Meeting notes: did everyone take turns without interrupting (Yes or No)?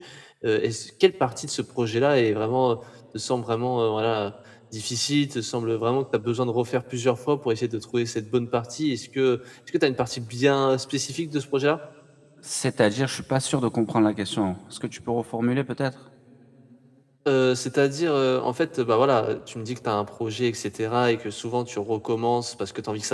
Yes